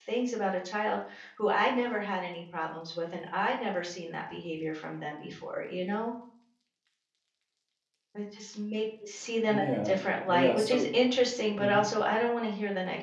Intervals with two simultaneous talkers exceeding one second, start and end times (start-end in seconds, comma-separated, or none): 9.5-10.9